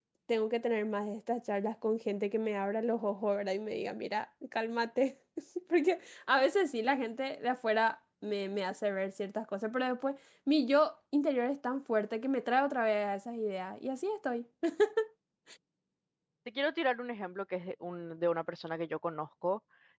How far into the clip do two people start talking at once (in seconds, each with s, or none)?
none